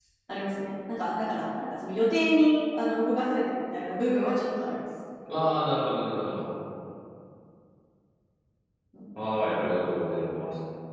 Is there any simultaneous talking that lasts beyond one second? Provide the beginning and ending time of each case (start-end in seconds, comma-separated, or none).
none